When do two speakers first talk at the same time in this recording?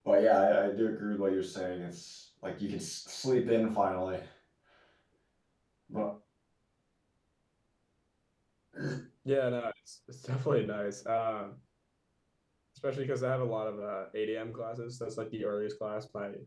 none

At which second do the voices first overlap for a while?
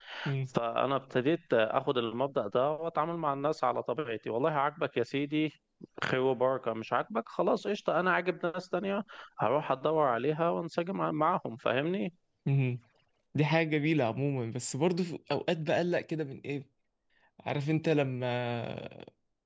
none

